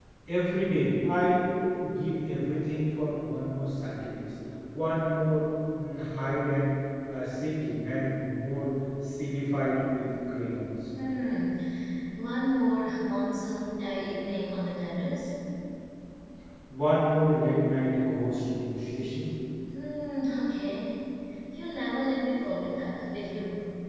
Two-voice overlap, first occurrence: none

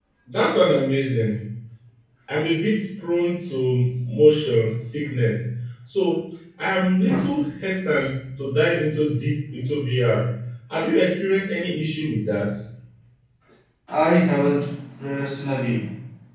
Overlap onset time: none

